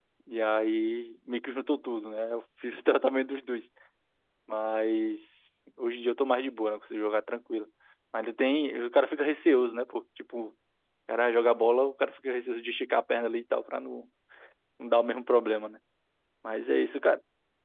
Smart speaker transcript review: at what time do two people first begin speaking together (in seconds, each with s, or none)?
none